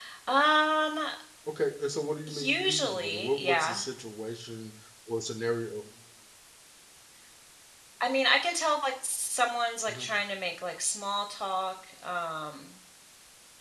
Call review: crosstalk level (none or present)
present